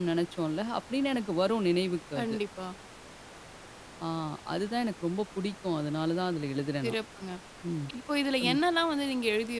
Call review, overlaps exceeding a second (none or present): none